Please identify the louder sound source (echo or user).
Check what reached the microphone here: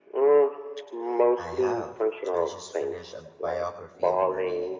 echo